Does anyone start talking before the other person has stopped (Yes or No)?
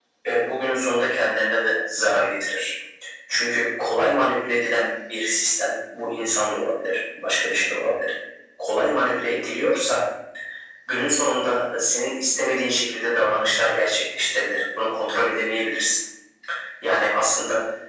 No